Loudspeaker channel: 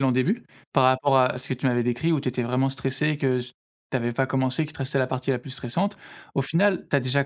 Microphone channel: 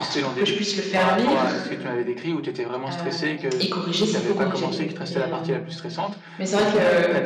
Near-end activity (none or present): present